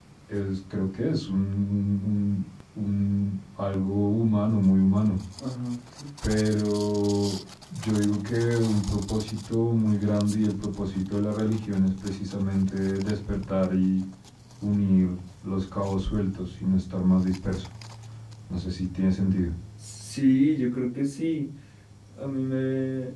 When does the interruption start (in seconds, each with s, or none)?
none